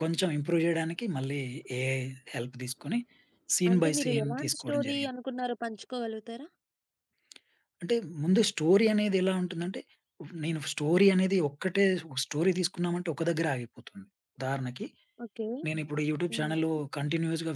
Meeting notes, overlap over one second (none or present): present